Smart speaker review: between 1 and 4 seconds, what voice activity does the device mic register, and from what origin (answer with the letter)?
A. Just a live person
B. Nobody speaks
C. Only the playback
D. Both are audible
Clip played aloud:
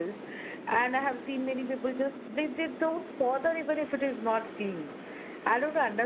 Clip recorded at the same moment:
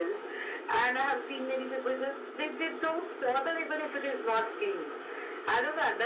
C